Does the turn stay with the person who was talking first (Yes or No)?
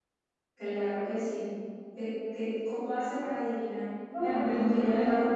No